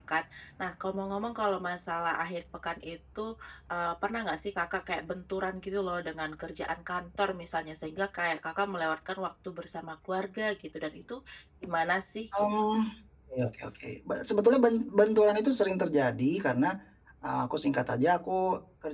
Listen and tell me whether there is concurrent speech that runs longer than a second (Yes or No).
No